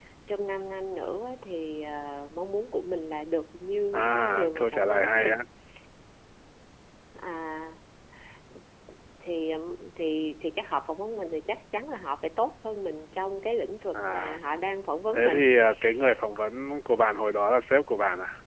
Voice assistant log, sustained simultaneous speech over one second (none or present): present